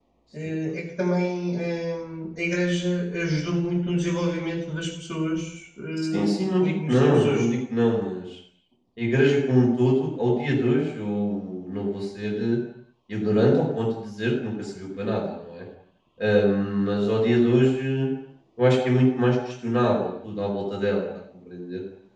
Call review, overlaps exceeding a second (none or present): present